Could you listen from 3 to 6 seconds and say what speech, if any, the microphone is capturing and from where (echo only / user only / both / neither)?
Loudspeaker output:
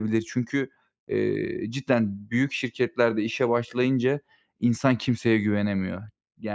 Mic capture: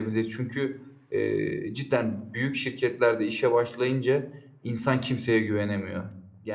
echo only